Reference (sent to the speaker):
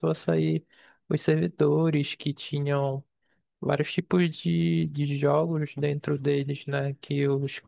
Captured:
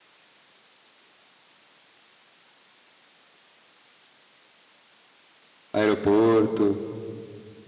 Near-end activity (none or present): present